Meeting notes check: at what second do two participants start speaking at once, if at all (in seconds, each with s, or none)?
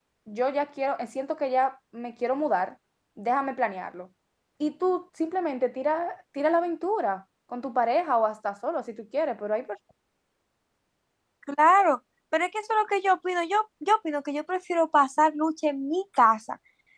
none